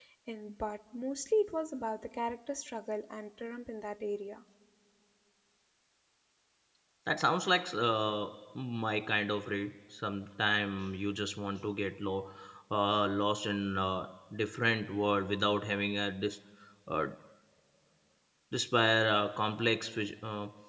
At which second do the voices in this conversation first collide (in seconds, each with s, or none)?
none